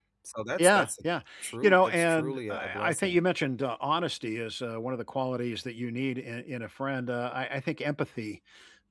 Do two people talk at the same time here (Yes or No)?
Yes